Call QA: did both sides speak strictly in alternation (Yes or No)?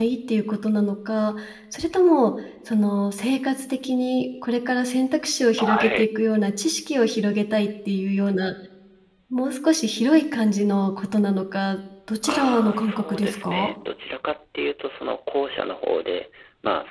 No